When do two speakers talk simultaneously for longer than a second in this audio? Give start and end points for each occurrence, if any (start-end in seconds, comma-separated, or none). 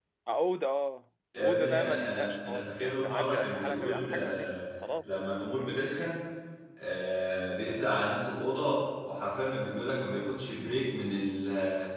1.4-4.6